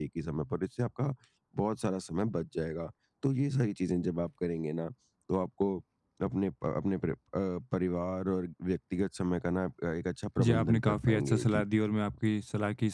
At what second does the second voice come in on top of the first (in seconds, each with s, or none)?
10.4 s